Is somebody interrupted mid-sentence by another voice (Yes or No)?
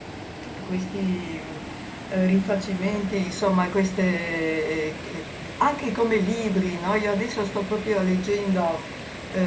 No